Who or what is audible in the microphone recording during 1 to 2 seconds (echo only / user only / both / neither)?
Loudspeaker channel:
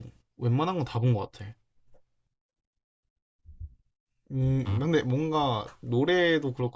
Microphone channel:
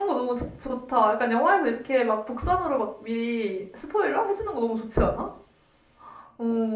user only